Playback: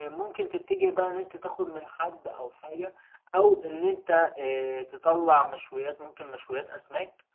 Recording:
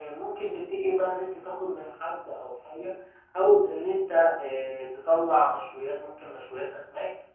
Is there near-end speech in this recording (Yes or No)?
No